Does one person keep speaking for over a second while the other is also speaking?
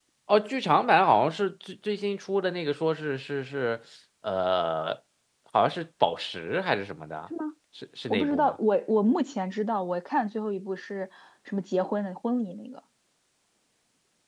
No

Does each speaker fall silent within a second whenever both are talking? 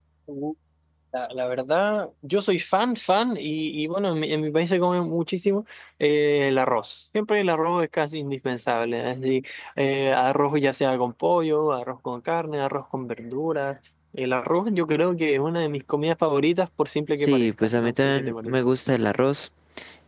No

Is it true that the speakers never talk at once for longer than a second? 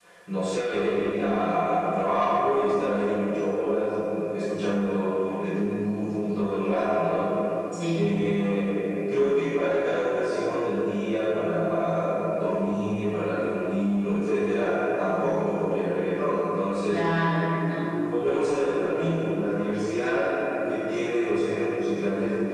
Yes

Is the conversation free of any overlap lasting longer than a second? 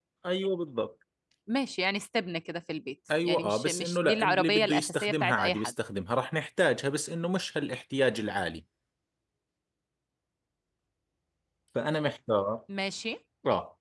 No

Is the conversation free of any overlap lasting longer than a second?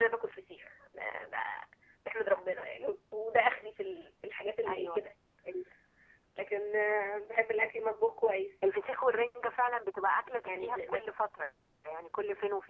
Yes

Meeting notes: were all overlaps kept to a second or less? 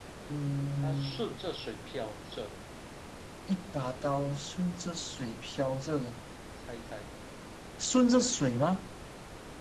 Yes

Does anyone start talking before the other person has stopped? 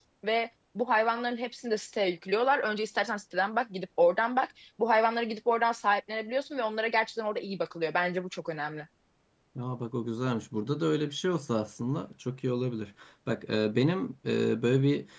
No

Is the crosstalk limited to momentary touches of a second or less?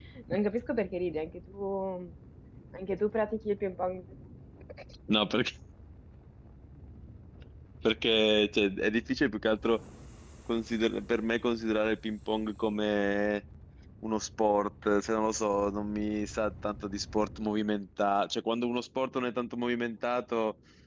Yes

